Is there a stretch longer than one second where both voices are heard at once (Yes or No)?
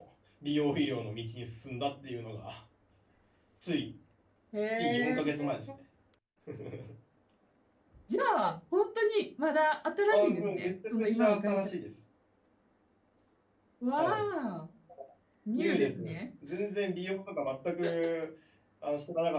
Yes